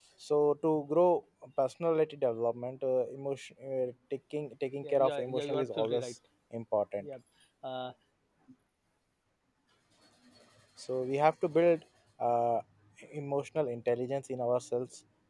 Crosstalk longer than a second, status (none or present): present